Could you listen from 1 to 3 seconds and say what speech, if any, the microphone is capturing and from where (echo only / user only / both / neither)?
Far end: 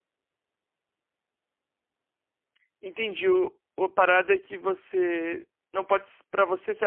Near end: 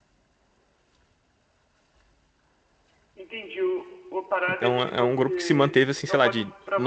neither